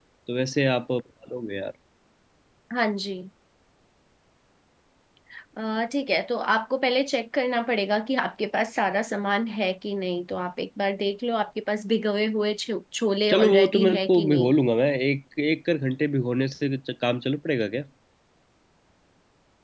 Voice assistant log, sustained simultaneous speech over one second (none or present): present